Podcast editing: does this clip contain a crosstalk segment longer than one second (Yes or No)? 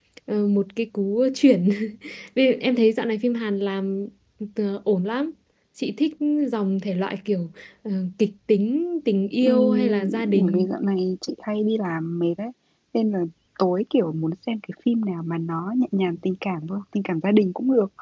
Yes